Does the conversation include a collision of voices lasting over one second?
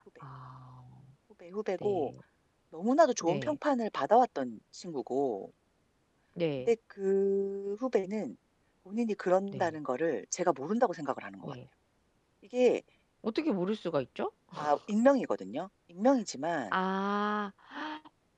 No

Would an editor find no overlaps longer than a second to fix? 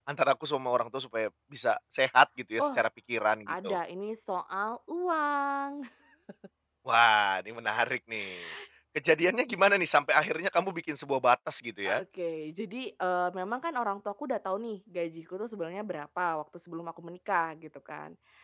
Yes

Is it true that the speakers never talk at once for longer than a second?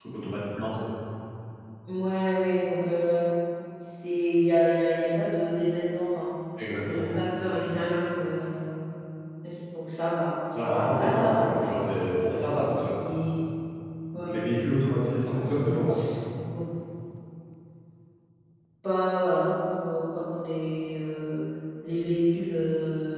No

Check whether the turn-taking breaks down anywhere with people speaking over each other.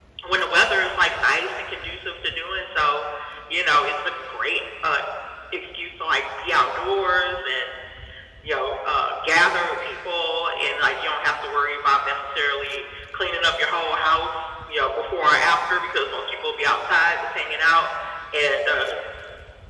No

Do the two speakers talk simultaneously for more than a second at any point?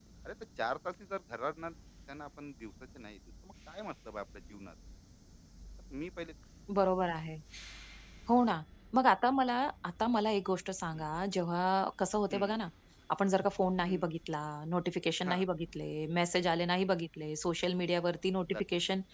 No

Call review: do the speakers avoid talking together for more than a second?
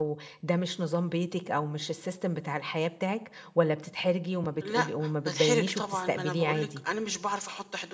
No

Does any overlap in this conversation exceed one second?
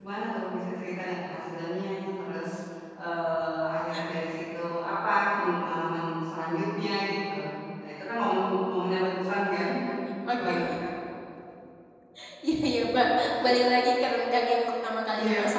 No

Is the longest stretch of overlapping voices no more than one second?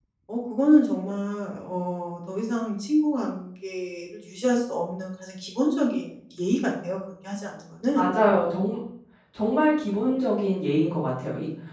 Yes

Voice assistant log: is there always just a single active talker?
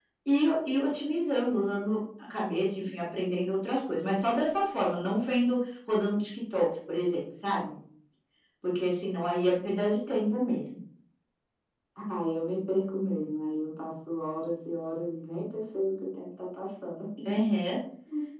Yes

